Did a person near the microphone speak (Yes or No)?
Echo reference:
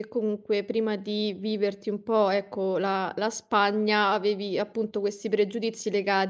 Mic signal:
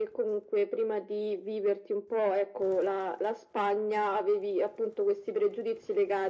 No